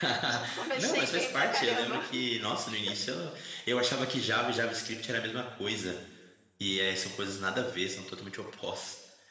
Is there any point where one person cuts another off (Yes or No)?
Yes